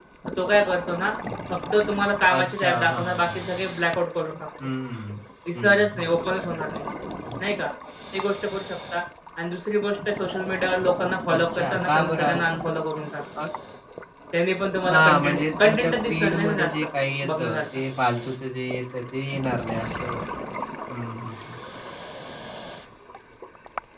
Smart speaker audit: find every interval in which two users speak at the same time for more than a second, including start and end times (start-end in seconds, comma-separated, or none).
2.4-3.6, 11.3-12.6, 14.8-16.7